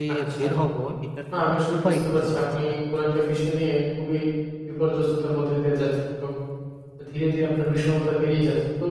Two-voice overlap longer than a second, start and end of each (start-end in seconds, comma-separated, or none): 1.4-2.7